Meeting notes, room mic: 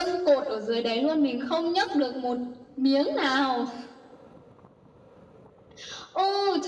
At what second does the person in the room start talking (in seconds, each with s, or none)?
none